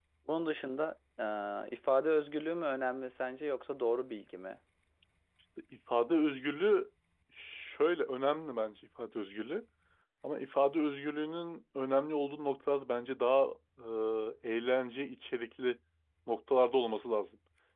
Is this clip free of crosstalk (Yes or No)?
Yes